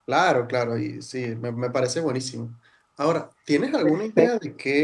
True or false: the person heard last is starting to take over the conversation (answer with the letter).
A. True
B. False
B